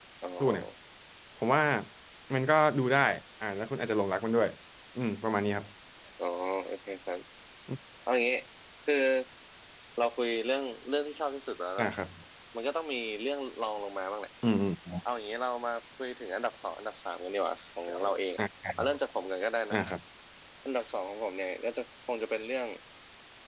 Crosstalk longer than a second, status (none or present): none